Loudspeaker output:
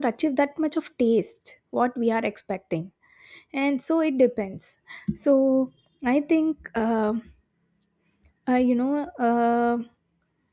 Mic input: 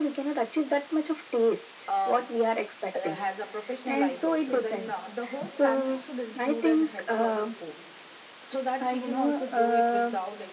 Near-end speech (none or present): present